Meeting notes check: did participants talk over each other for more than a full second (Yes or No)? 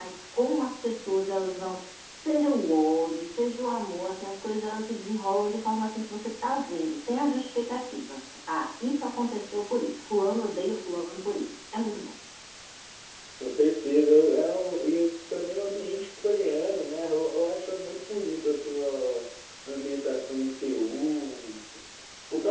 No